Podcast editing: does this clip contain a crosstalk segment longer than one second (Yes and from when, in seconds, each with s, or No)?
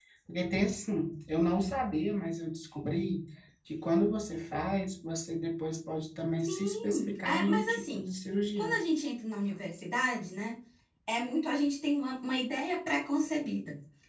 Yes, from 6.5 s